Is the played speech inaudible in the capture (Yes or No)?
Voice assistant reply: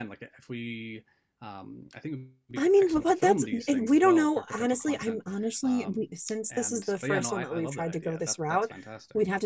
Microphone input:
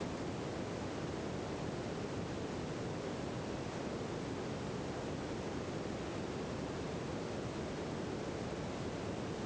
Yes